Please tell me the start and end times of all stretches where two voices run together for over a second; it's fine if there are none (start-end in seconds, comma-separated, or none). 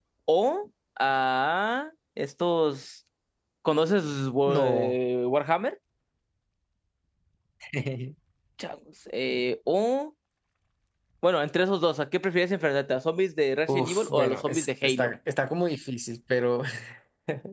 13.7-15.1